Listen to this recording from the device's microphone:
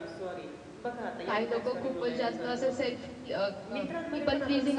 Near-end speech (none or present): present